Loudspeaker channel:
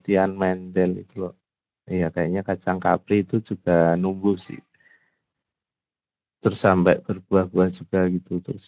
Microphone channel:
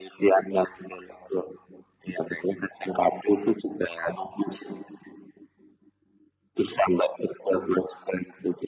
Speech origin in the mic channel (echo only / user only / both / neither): echo only